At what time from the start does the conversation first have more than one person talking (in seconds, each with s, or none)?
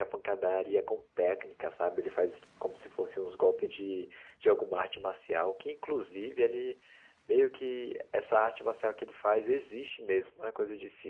none